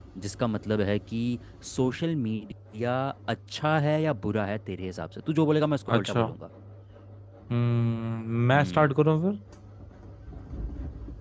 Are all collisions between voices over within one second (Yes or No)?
Yes